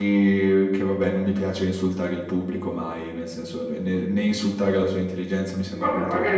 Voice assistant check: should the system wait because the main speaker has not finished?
No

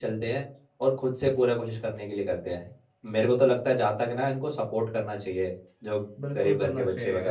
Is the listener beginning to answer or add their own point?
Yes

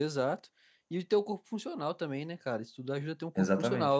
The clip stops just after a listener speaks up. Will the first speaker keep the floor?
Yes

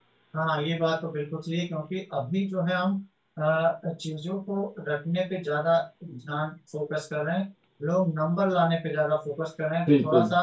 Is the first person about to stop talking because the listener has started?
No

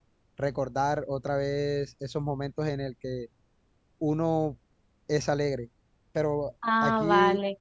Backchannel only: Yes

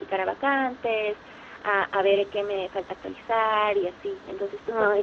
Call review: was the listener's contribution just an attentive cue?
No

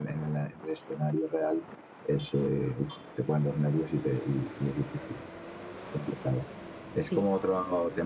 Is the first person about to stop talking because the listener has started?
No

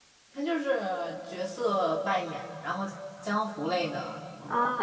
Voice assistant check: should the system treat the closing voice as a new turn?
Yes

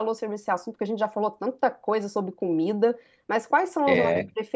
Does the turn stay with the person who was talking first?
No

